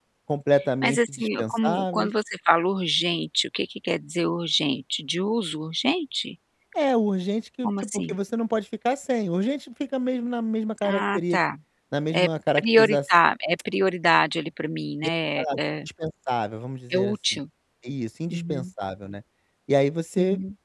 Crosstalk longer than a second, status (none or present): present